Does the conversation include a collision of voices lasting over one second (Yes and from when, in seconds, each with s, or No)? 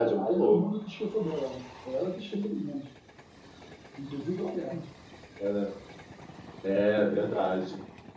No